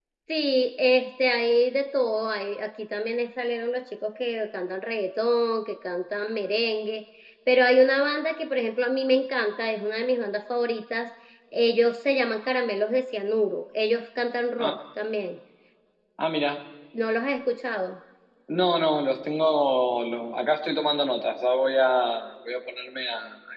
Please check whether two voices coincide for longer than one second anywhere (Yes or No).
No